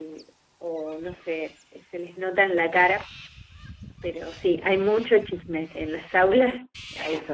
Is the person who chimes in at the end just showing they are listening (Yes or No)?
No